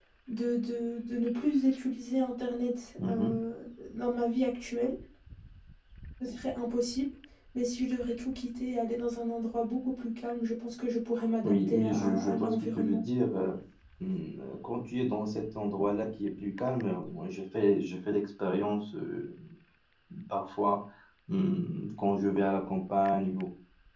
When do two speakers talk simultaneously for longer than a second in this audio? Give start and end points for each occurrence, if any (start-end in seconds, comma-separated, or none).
11.4-13.0